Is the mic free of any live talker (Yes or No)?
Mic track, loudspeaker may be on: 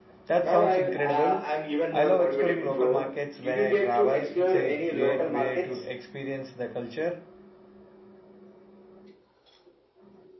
No